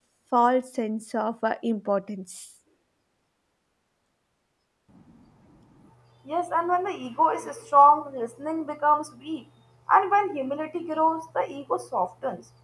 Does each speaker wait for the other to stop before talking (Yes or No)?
Yes